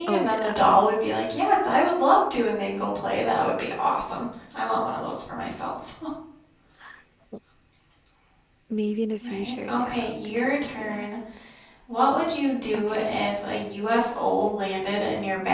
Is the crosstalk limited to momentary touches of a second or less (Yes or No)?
No